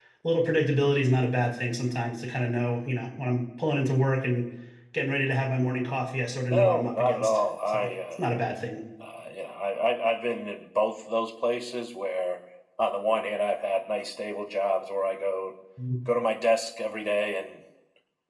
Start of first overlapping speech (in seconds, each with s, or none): 6.5 s